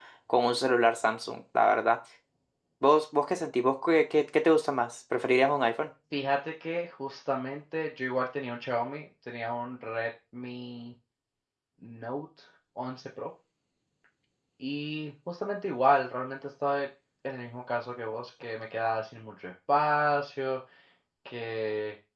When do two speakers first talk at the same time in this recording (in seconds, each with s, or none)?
none